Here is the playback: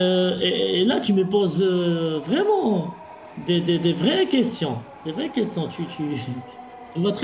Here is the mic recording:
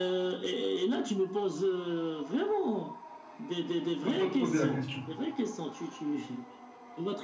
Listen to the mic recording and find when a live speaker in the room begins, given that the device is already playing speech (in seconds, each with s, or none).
4.0 s